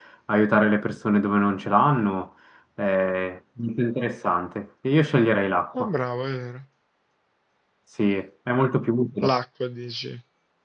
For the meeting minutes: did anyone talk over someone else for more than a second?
No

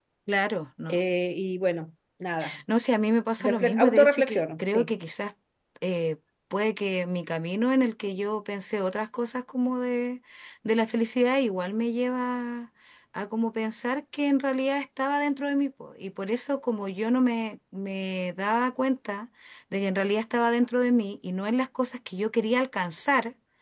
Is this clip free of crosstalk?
No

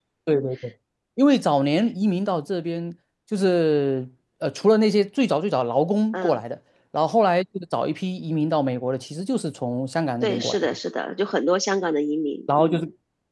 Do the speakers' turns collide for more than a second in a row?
No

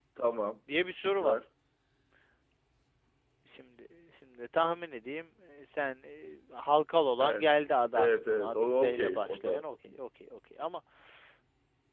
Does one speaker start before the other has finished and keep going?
Yes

